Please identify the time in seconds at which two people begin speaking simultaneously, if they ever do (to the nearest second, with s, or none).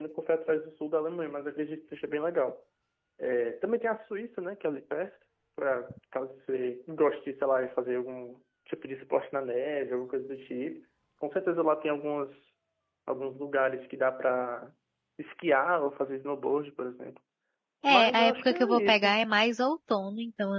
18 s